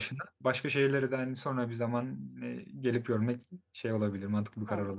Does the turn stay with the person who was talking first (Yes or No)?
No